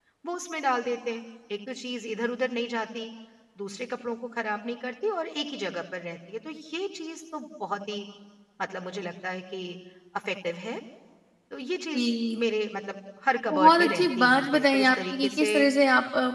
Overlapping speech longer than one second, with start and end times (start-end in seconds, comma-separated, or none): 13.5-15.5